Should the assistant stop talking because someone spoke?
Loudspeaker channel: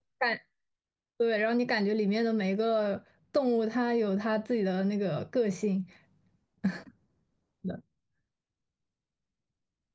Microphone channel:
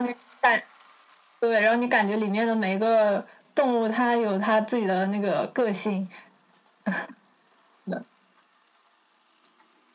No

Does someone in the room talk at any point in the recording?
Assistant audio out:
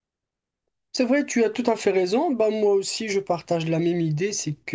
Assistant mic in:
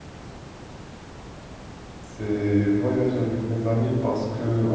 Yes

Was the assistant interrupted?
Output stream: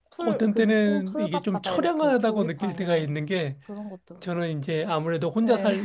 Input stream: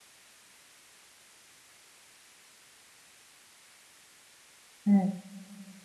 Yes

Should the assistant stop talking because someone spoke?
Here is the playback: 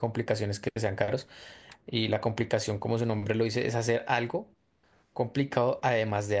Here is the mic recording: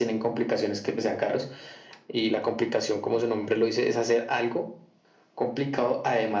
No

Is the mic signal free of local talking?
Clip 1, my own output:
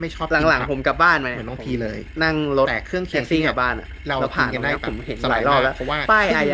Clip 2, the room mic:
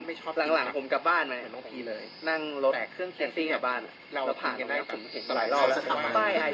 No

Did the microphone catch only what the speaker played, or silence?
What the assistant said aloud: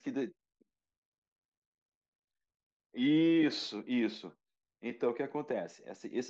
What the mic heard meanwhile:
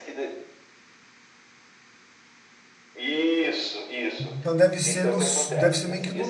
No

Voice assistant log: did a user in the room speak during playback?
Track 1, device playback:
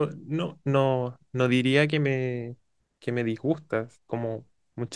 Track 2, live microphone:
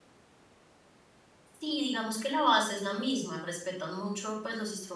Yes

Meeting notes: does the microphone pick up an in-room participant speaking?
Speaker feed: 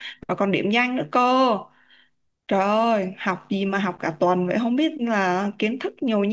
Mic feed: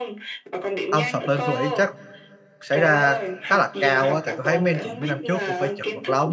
Yes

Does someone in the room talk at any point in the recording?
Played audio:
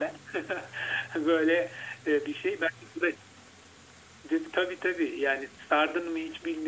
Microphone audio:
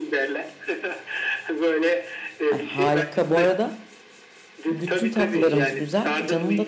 Yes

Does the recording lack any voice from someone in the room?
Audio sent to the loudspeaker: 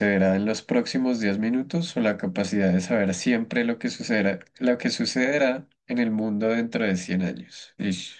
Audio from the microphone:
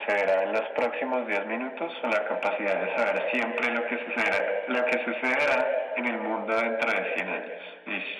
Yes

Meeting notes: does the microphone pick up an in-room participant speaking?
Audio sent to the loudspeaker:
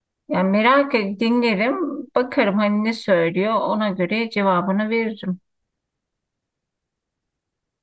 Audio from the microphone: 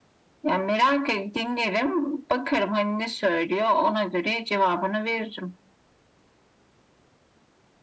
No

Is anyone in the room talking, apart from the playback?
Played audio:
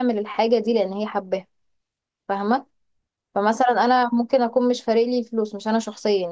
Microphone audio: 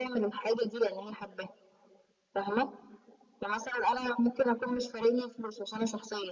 No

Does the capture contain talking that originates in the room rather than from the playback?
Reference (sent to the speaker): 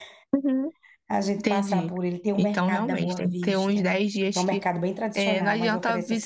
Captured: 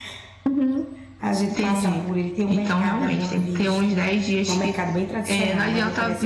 No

